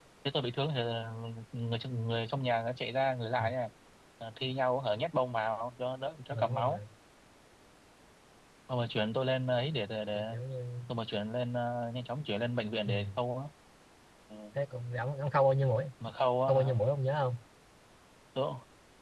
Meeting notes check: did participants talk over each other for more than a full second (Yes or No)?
No